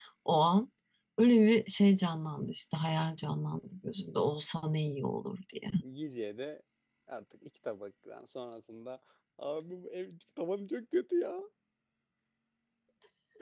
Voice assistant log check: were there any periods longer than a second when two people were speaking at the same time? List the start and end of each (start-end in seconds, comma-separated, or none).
none